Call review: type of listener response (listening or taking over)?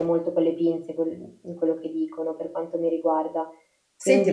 taking over